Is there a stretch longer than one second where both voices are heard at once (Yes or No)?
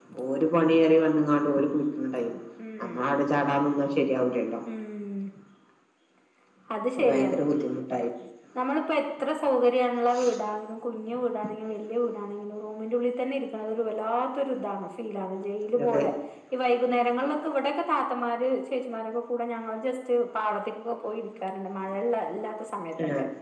No